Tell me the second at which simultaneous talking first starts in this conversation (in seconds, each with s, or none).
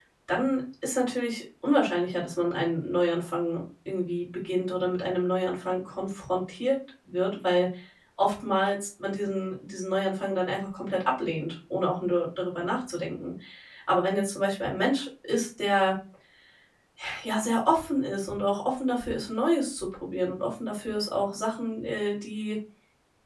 none